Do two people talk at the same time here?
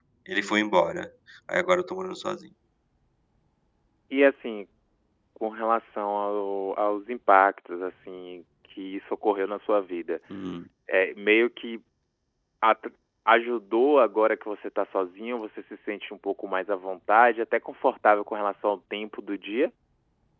No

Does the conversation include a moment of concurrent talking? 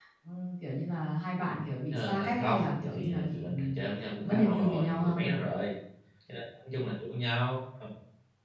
Yes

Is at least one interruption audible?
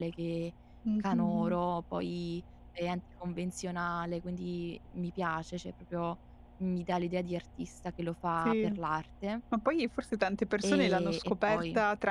Yes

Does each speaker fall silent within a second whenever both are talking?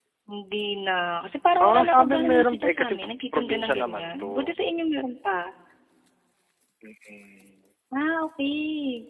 No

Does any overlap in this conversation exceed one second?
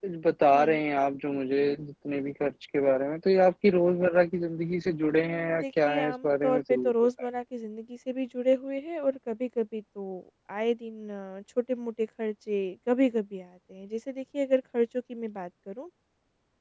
Yes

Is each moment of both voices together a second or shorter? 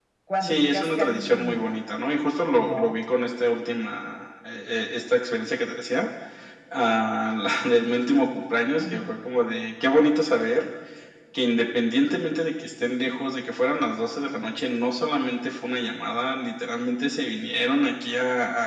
No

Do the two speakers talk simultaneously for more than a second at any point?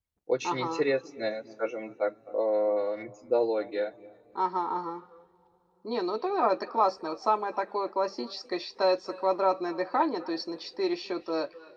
No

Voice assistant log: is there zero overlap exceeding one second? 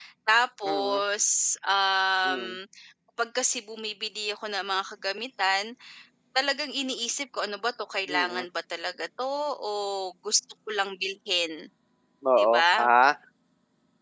Yes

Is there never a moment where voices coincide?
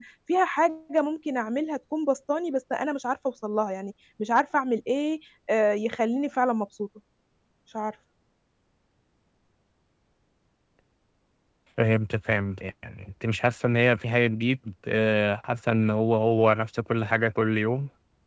Yes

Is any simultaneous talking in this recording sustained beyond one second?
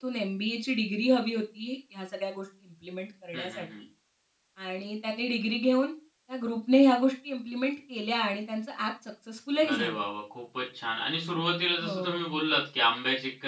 No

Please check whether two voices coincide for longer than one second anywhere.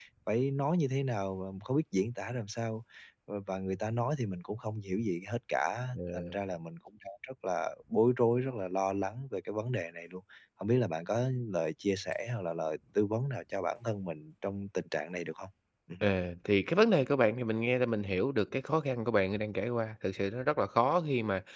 No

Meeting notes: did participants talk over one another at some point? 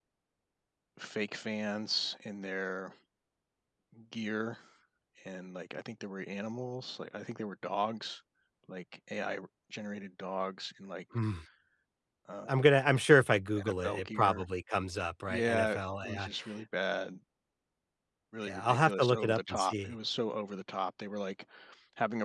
Yes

